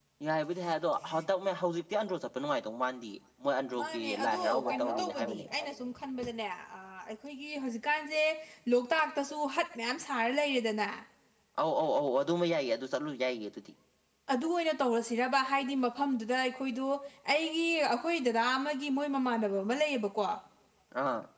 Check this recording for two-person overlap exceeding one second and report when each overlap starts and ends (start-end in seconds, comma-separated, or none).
3.8-5.5